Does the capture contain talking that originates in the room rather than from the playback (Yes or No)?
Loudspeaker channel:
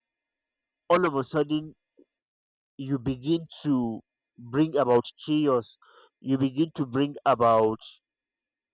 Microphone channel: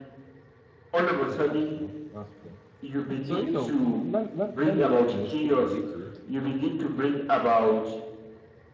Yes